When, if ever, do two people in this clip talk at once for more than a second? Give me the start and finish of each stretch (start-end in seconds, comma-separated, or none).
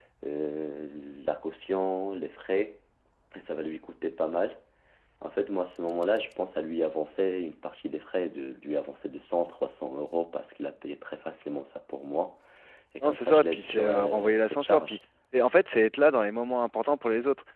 13.0-15.0